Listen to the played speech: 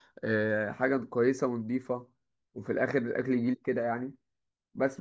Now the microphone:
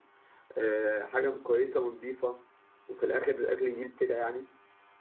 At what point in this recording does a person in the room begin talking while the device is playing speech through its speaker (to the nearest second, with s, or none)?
none